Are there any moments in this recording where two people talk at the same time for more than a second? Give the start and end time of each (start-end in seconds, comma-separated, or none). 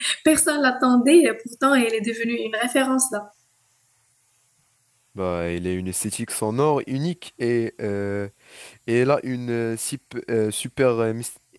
none